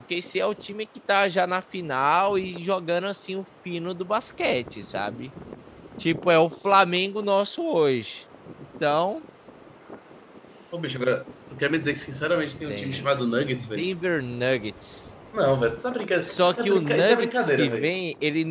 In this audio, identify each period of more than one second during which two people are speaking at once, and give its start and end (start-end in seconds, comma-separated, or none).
16.2-17.9